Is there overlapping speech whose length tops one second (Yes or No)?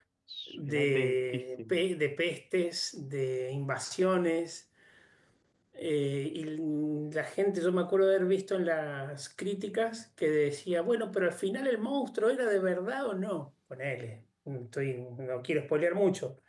Yes